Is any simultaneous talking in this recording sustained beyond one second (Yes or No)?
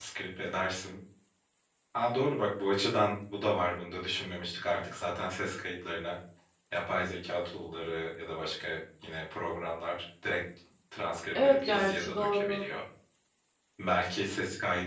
Yes